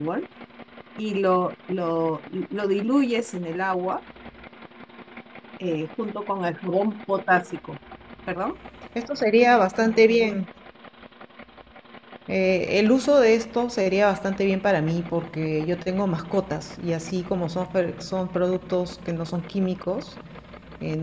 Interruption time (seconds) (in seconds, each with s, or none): none